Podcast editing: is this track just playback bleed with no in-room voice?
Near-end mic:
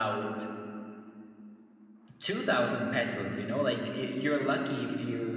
Yes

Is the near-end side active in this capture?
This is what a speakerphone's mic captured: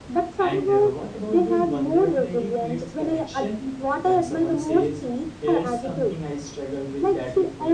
Yes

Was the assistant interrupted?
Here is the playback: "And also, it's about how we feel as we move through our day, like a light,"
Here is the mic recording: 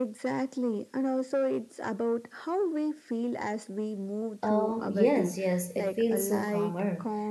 Yes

